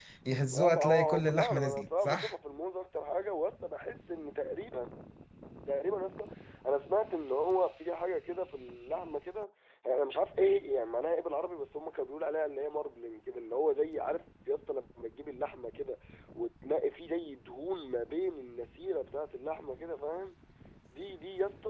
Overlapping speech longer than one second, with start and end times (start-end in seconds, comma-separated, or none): 0.5-2.3